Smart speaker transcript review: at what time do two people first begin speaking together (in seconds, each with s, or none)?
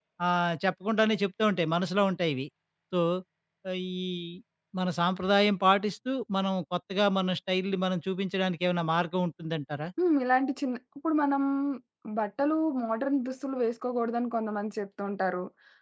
none